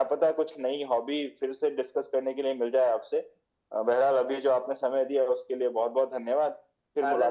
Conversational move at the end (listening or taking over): taking over